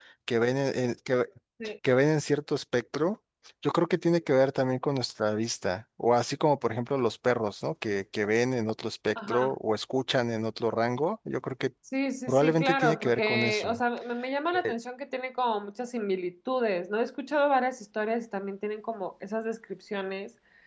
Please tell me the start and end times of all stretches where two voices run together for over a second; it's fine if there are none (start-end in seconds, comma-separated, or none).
12.3-13.8